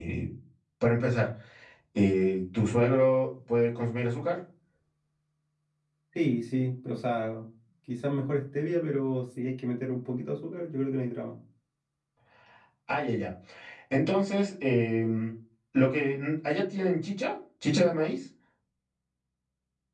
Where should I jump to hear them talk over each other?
none

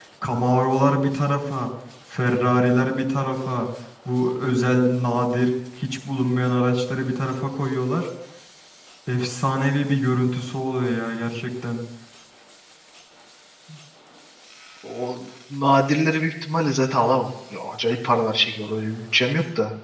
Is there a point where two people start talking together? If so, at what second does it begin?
none

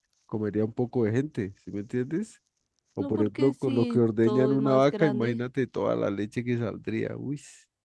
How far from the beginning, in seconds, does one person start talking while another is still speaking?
3.0 s

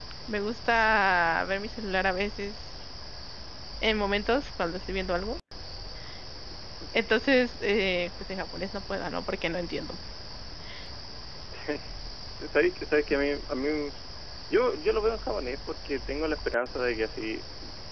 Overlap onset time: none

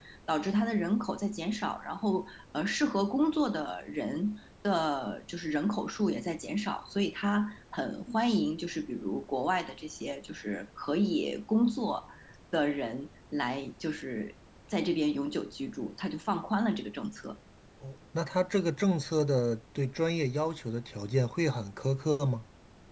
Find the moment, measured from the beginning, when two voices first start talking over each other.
none

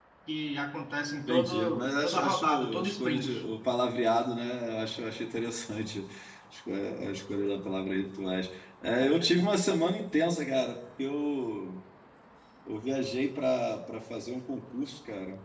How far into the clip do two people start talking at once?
1.3 s

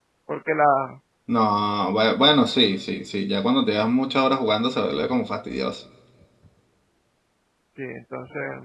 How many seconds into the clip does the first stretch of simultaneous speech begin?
none

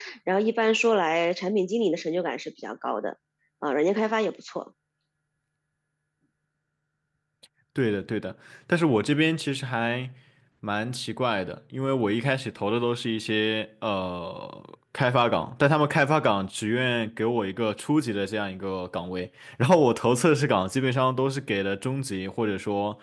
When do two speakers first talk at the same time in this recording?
none

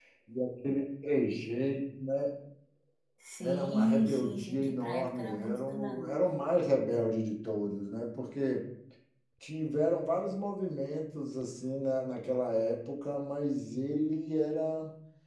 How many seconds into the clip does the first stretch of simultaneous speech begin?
3.4 s

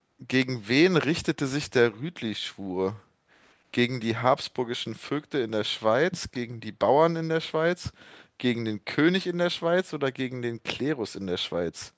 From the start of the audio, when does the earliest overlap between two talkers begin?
none

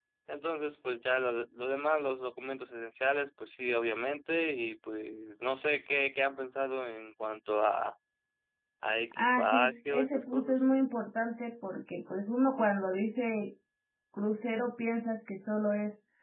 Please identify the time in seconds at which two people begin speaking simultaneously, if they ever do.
9.2 s

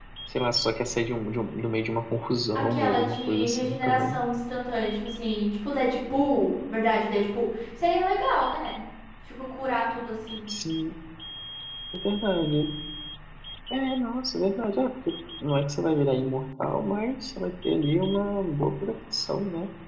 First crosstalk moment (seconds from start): 2.5 s

